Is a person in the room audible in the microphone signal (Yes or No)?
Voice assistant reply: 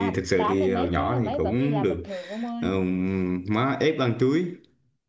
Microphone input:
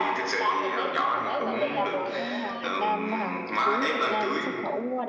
Yes